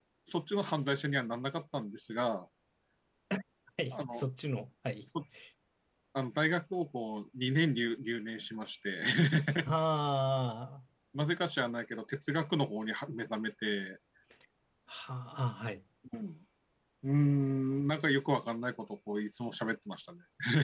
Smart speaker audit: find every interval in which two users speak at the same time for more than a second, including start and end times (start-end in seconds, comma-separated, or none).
none